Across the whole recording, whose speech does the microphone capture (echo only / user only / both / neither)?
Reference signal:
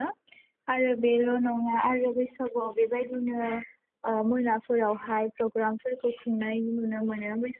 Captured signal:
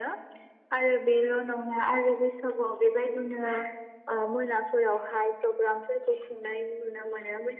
echo only